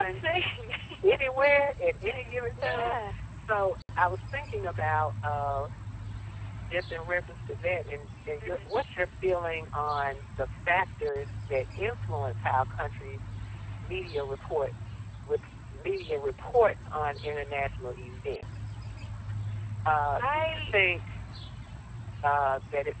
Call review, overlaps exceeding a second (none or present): none